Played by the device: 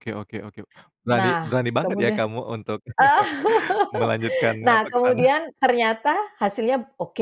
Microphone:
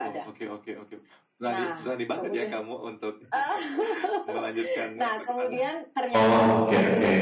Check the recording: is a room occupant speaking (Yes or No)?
Yes